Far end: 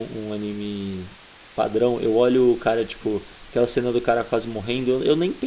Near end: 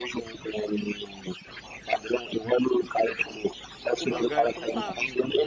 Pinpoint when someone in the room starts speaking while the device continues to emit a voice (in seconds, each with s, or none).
4.0 s